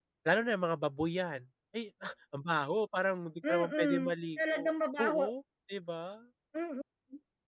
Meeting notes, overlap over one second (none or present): present